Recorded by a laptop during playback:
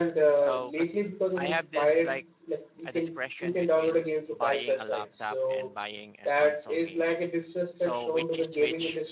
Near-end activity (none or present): present